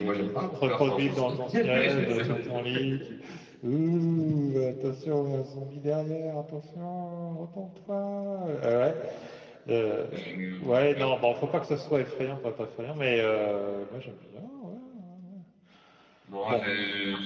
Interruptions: present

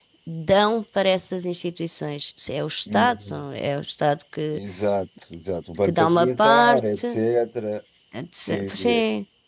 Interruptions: present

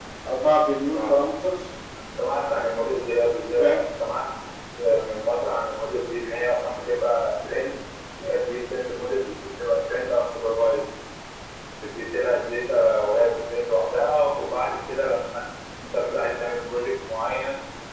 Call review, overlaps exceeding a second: none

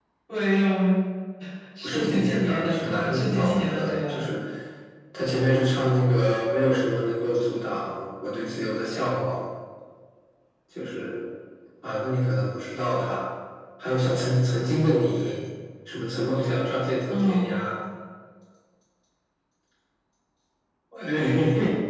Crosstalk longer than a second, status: present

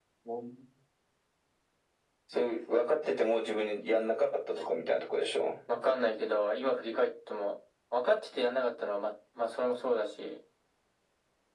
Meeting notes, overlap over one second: none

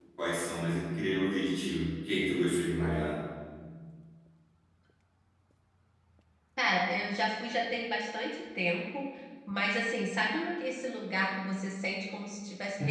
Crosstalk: none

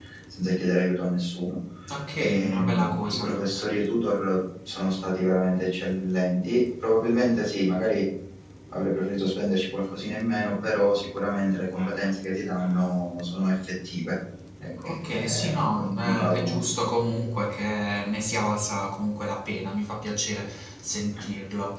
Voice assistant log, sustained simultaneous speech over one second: present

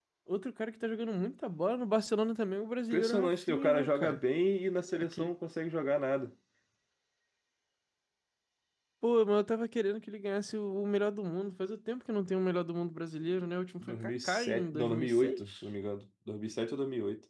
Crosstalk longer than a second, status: present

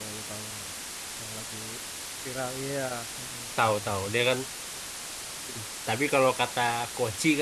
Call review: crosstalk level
none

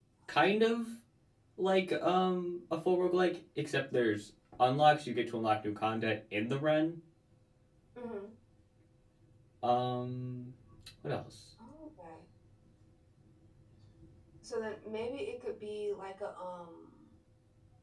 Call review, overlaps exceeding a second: none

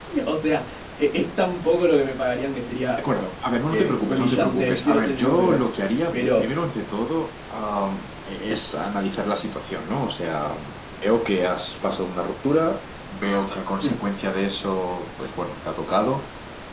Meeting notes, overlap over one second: present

